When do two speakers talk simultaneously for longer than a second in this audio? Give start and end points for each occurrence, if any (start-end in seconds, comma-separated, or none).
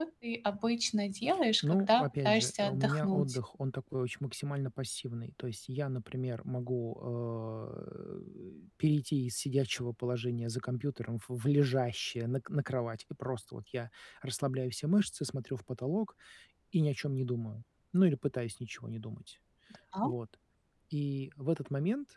1.6-3.4